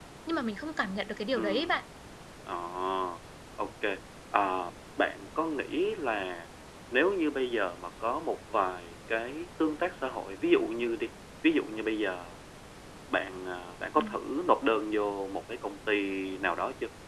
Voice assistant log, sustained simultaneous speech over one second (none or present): none